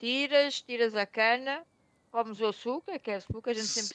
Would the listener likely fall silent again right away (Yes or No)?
Yes